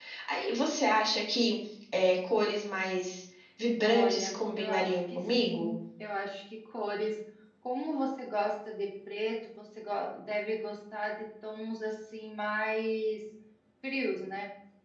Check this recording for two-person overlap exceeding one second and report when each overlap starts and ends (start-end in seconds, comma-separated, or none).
3.8-5.7